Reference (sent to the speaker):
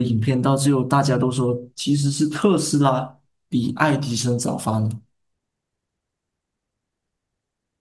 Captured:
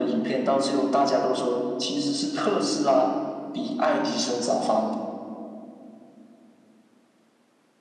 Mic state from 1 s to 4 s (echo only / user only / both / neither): echo only